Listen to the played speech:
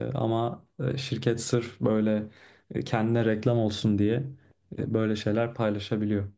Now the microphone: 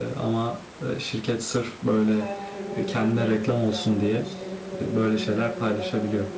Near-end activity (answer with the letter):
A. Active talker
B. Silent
A